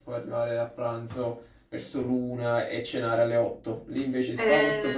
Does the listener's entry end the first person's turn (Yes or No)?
No